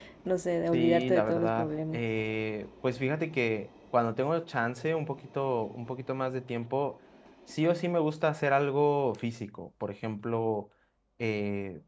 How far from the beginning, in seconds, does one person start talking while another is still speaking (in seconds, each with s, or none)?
0.7 s